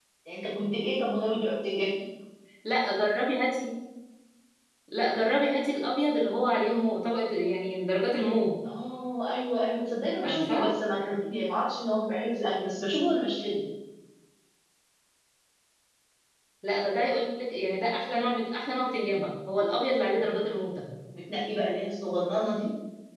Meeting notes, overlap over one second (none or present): none